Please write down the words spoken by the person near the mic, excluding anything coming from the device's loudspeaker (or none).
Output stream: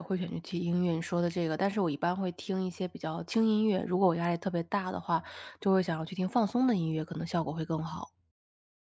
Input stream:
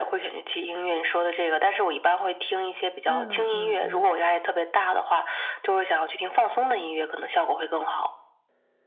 嗯嗯嗯，